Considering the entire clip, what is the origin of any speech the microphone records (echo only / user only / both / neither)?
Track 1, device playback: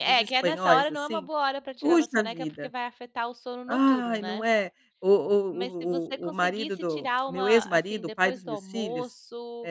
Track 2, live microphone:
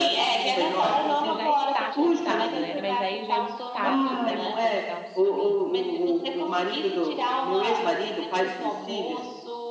both